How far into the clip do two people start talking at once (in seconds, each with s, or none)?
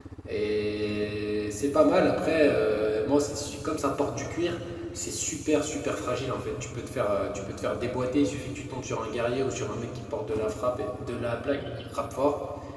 none